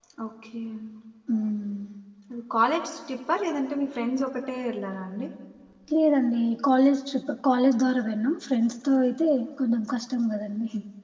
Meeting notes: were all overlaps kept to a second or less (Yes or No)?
Yes